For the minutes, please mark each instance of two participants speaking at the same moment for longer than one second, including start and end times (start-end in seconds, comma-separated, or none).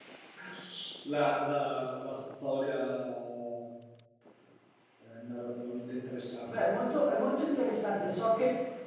none